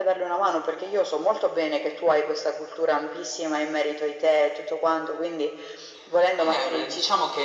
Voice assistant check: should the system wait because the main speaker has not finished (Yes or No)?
No